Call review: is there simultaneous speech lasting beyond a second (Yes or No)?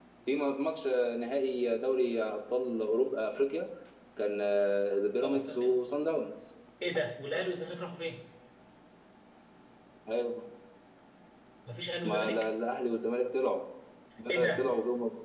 No